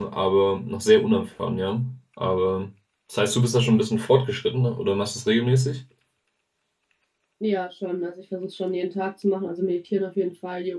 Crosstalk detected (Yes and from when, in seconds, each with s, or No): No